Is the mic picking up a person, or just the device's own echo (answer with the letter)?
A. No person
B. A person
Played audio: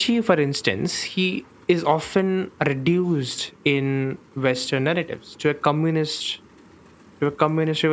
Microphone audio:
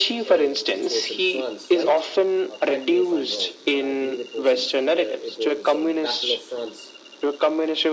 B